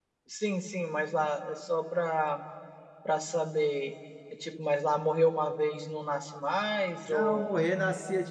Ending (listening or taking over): taking over